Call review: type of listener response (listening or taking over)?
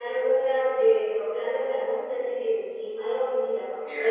taking over